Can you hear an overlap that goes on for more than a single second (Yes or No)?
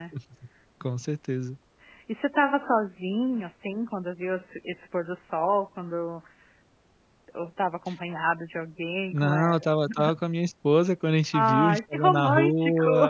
Yes